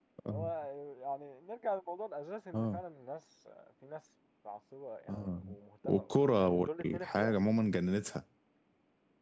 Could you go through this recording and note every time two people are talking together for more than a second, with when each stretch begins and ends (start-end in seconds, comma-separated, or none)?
5.8-7.3